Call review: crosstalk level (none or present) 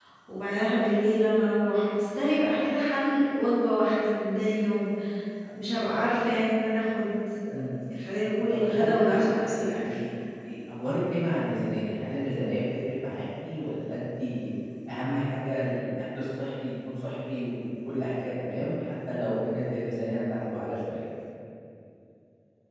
present